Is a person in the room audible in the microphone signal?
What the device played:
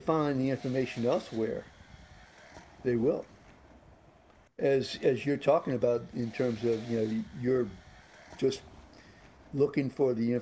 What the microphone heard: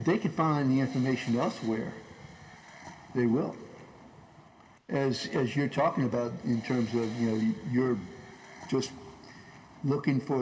No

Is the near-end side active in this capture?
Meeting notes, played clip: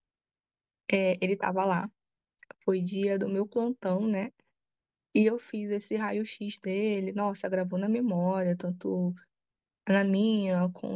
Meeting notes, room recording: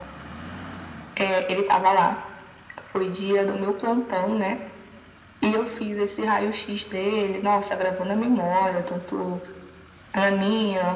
No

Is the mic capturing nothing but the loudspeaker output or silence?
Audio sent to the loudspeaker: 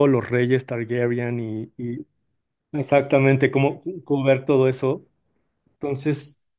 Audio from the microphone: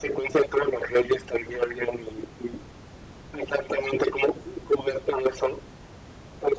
Yes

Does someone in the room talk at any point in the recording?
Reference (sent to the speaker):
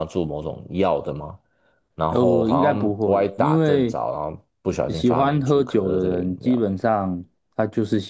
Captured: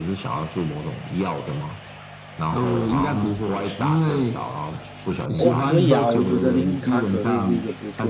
Yes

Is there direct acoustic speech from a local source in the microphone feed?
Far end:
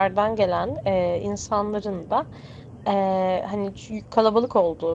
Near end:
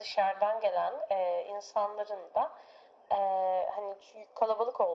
No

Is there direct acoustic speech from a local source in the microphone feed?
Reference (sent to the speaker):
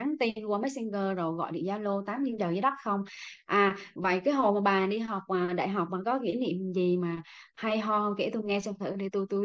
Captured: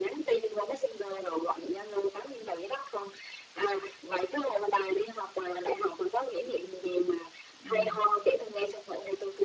Yes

